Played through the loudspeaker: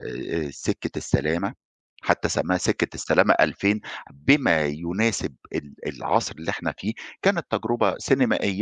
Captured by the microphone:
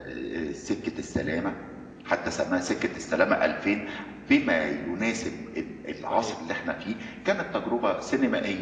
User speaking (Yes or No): Yes